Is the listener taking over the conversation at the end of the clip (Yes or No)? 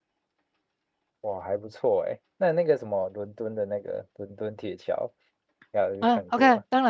Yes